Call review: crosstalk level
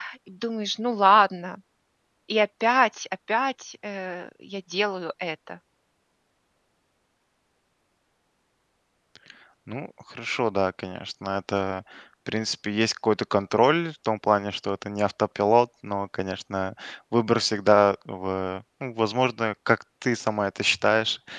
none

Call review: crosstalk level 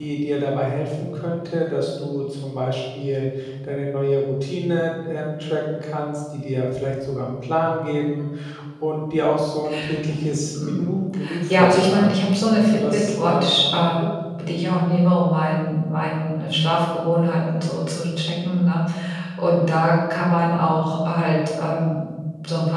present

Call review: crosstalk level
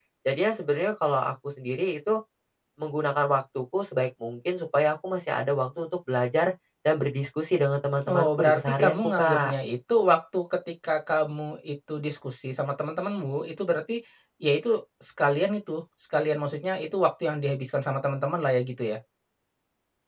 present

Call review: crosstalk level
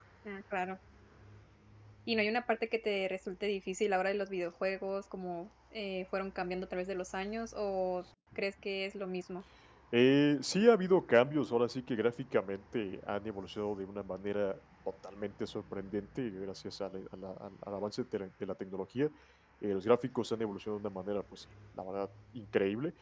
none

